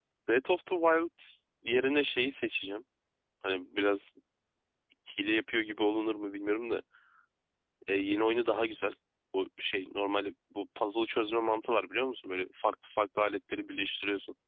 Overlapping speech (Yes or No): No